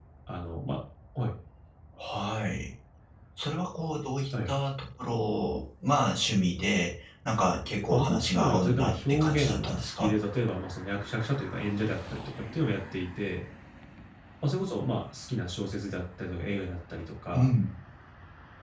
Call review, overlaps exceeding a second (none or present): present